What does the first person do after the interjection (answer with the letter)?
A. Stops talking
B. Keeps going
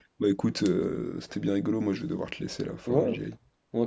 A